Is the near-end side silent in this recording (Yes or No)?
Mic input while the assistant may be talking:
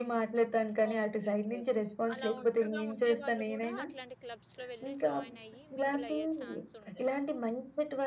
No